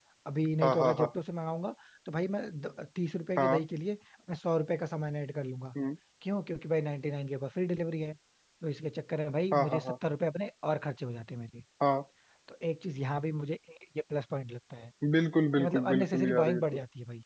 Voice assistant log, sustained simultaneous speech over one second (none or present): present